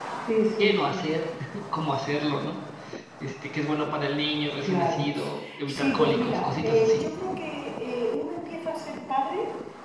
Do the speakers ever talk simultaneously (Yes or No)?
Yes